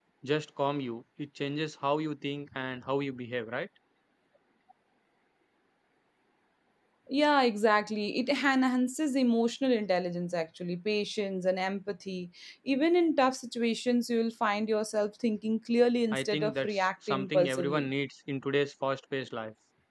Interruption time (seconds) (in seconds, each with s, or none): 16.1 s